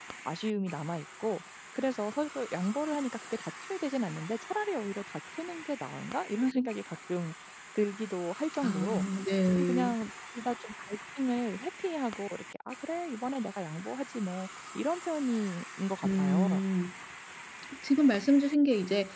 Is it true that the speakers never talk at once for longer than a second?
Yes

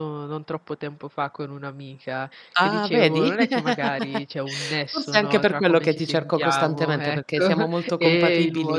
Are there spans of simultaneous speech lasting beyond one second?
Yes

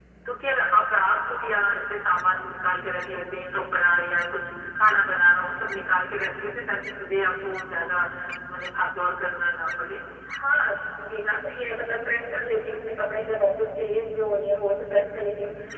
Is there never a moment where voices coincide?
Yes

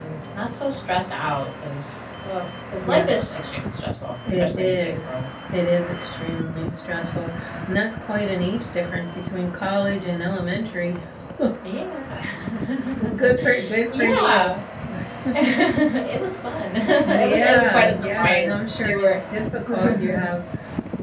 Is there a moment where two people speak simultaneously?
Yes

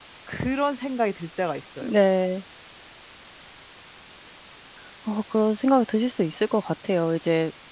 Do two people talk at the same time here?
No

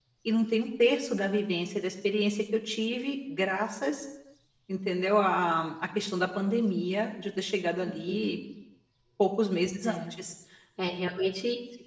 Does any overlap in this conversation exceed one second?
No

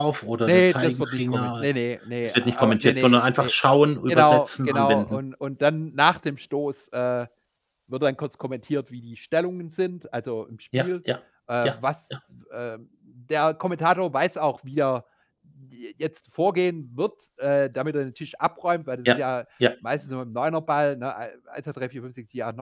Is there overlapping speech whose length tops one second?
Yes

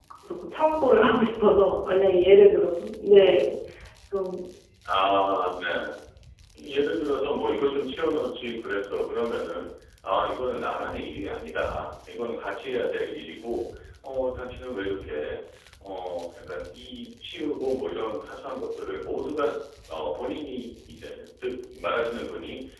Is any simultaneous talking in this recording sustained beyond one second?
No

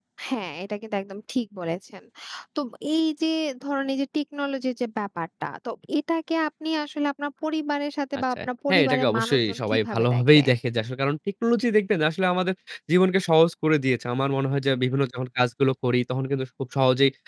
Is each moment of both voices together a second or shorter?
No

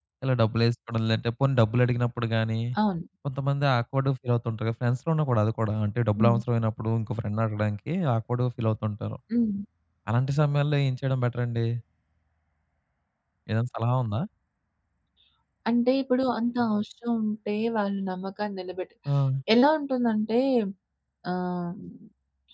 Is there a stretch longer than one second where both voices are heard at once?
No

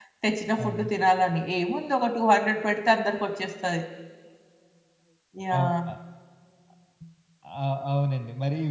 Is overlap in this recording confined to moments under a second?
Yes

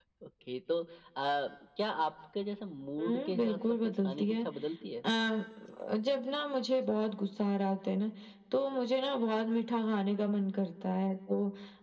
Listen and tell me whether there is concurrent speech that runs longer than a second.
Yes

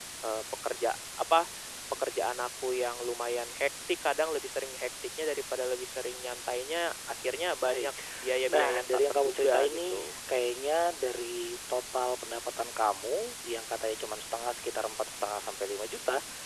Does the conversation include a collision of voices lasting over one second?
Yes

